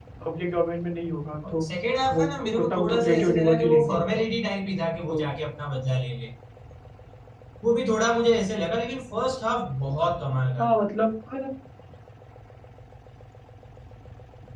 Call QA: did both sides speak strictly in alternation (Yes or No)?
No